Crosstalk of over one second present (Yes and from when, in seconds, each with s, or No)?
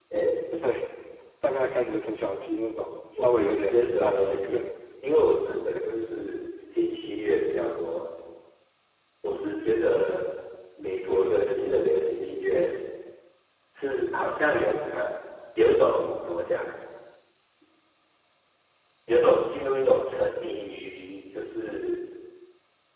Yes, from 3.2 s